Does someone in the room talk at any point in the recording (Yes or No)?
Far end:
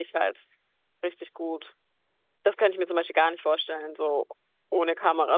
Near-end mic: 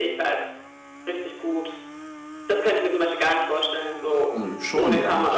Yes